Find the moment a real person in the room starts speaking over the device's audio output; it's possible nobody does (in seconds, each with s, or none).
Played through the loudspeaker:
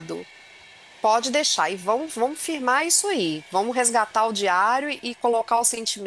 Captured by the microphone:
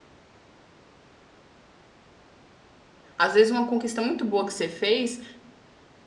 3.2 s